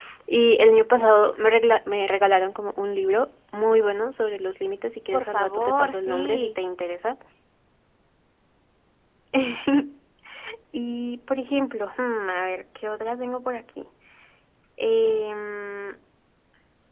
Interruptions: present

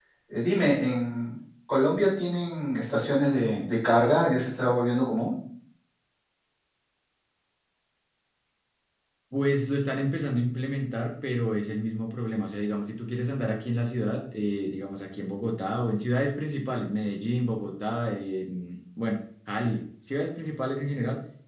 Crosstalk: none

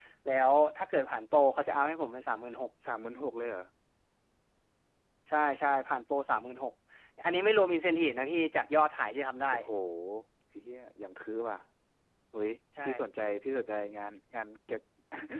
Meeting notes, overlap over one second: none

